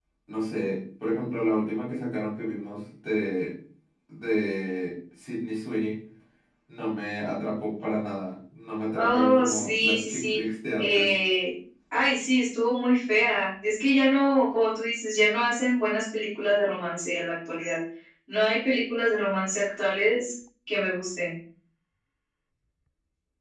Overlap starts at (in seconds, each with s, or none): 8.9 s